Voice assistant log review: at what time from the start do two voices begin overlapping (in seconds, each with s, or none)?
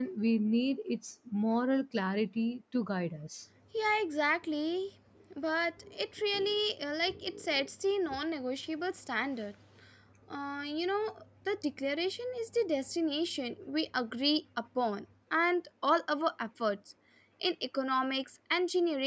none